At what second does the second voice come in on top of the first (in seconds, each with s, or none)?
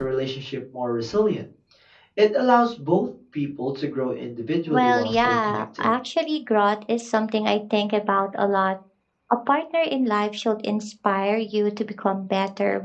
4.7 s